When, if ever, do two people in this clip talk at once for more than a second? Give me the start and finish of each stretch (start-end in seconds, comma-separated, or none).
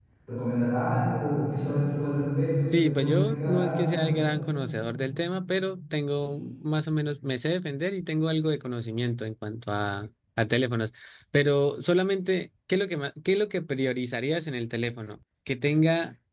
2.7-4.2